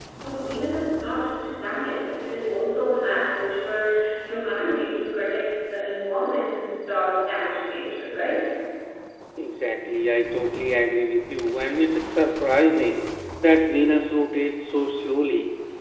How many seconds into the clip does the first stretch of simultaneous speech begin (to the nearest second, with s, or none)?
none